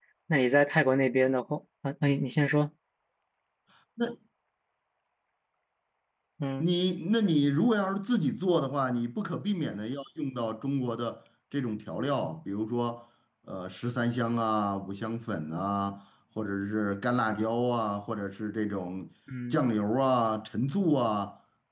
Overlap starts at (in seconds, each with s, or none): none